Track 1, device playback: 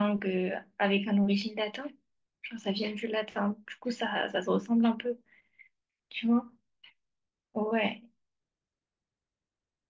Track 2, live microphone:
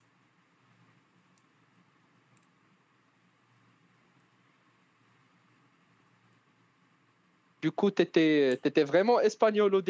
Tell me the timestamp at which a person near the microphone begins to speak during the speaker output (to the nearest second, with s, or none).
8 s